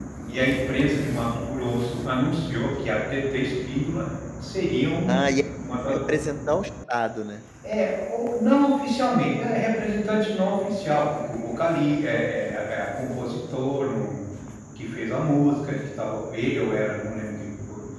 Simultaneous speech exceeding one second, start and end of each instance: none

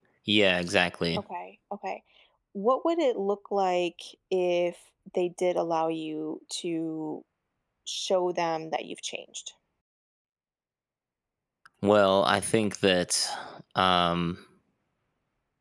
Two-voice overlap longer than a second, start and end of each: none

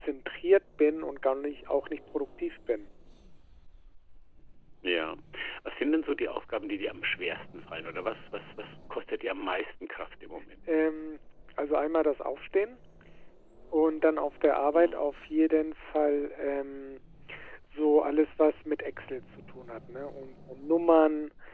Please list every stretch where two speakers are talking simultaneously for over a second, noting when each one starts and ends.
none

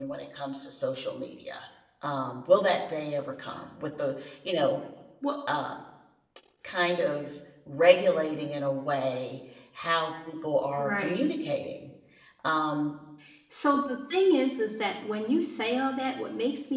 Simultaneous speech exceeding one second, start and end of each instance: none

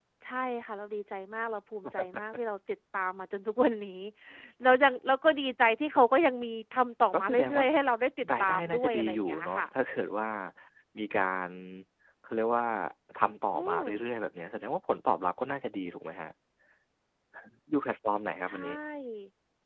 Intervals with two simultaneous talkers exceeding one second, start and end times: 8.4-9.7

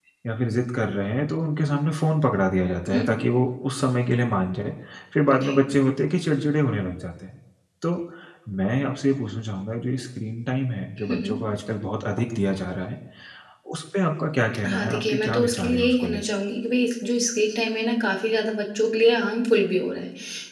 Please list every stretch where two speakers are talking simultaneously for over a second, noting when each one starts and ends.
14.7-16.2

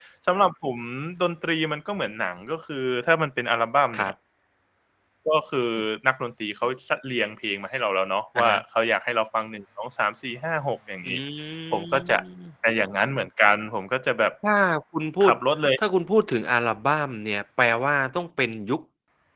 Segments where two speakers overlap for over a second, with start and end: none

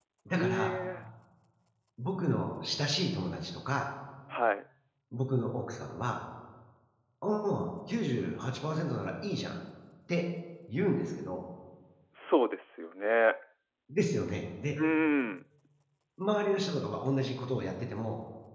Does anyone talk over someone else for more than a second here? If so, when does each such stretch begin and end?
none

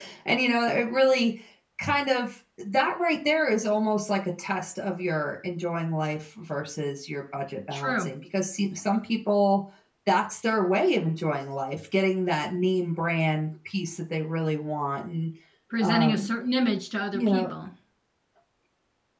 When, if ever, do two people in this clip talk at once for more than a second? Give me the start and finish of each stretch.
none

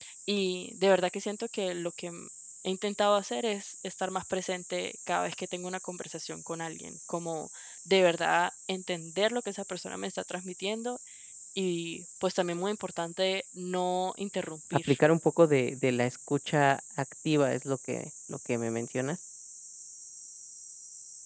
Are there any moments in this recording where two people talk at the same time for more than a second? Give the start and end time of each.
none

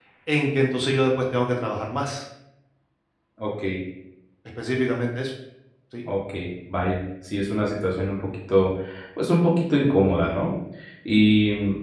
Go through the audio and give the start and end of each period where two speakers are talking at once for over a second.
none

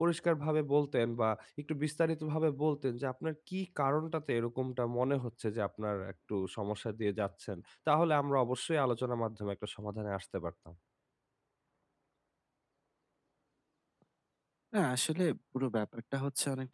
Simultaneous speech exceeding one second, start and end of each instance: none

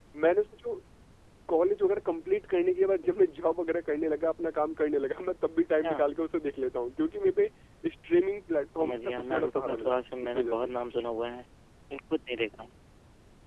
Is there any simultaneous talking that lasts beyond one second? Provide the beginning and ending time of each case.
8.8-10.7

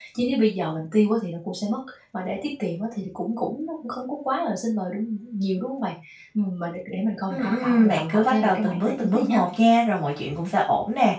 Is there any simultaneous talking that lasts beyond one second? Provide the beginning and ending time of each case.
7.3-9.4

